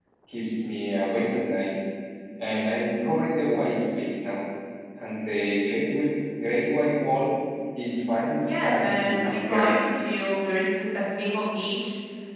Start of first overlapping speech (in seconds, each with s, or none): 8.5 s